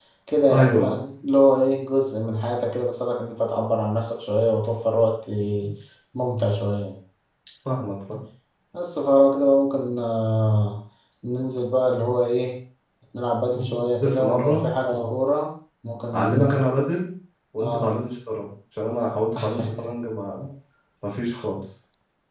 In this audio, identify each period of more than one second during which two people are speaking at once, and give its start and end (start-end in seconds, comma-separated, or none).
13.6-15.1